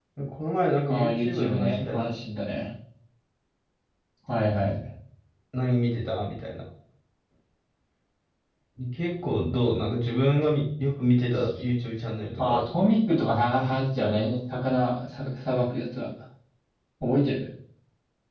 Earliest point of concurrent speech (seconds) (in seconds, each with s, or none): 0.9 s